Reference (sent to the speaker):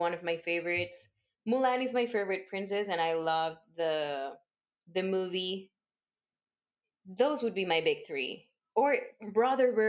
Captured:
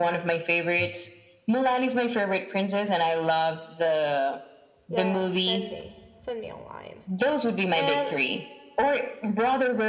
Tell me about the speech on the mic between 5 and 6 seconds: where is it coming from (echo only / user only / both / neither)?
both